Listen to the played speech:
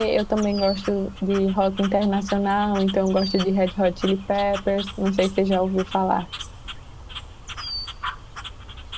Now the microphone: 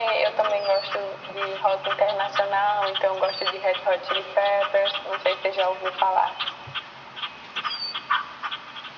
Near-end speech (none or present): none